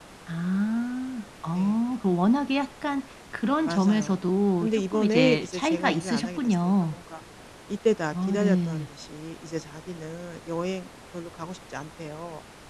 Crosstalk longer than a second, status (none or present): present